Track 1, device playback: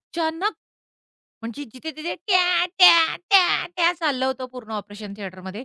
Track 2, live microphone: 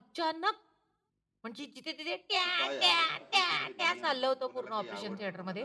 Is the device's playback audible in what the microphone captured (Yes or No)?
Yes